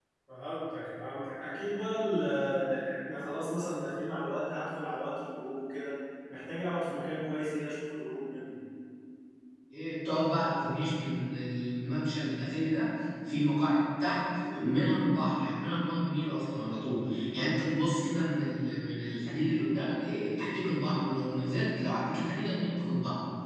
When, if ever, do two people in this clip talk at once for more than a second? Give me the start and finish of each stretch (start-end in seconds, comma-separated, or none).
none